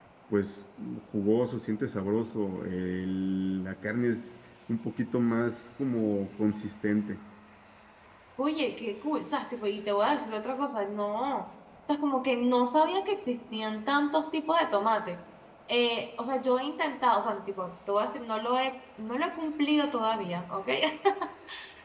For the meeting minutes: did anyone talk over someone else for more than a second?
No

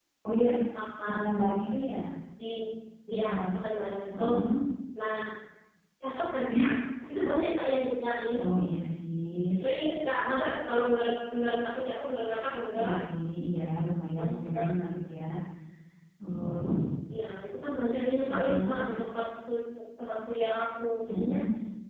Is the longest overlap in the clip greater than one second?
No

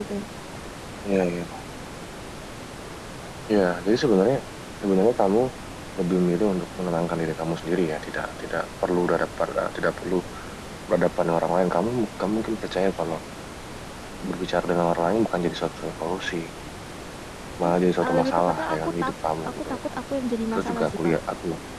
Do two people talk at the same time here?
Yes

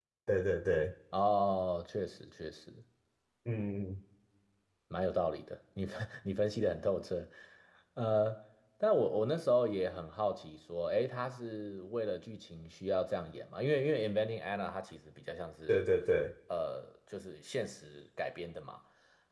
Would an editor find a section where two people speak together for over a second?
No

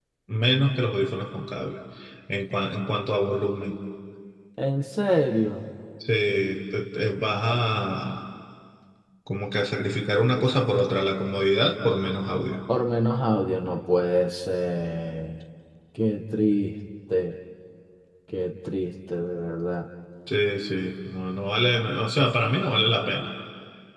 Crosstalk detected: No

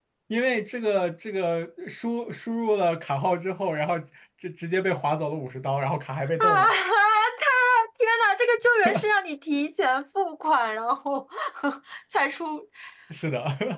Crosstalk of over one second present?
No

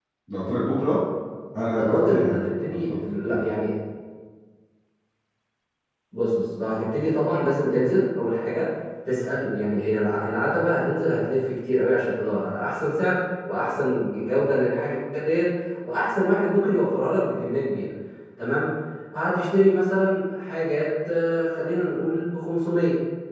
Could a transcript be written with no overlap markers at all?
No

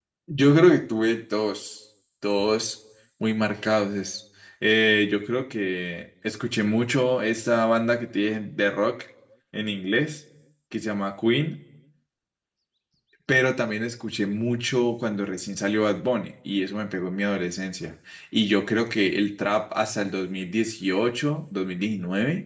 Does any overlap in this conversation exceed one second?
No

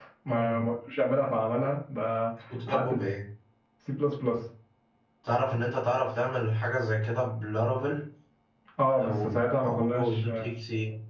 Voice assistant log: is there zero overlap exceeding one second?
No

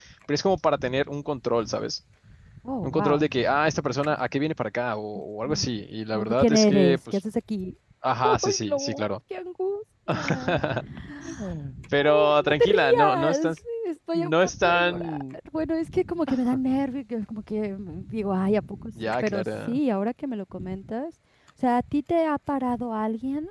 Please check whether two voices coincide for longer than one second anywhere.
Yes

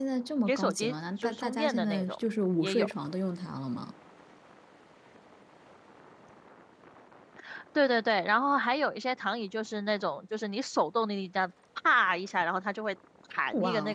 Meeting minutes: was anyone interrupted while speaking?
Yes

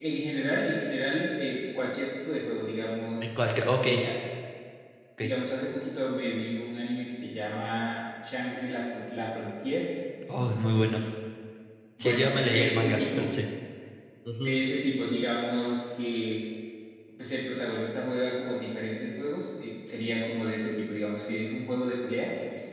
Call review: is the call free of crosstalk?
No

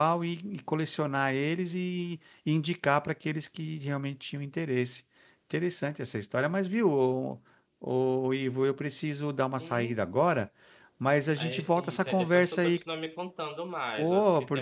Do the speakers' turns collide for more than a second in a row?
Yes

